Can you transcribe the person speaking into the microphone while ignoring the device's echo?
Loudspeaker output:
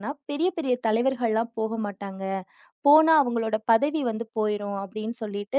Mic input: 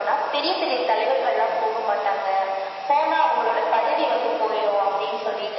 none

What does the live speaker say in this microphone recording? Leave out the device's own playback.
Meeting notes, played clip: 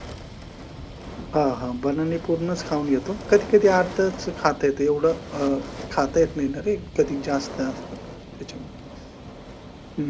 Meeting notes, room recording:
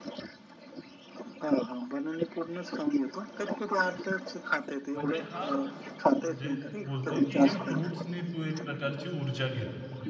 म्हणजे हा तुझ्या फ जे तू बोलतोय की हे फ्रुट्सनी तू एक प्रकारची ऊर्जा घेतो.

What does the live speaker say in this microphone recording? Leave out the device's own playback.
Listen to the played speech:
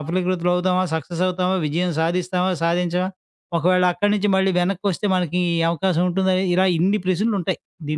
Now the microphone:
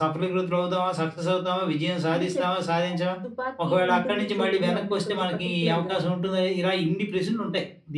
అంటే చెప్పారా? తుపాకీ ఉంటుంది జేబులో అని కొంచెం పర్టిక్యులర్‌గా.

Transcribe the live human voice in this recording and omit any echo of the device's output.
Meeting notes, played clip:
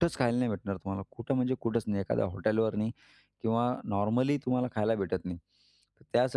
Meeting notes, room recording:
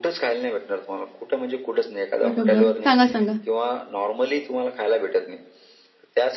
बरोबर. सांगा, सांगा.

